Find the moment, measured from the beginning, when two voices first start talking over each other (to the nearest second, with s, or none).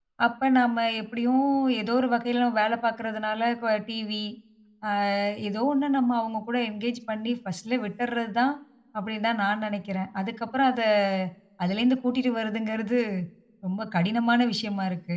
none